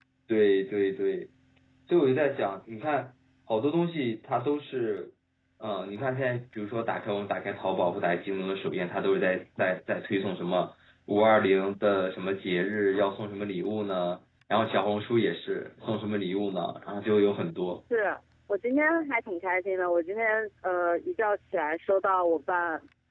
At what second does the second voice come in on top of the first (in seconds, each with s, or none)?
none